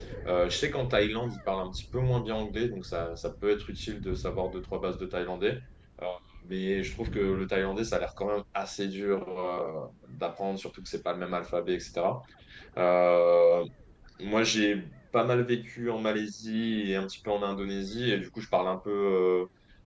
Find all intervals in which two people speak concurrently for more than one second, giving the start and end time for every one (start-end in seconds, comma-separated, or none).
none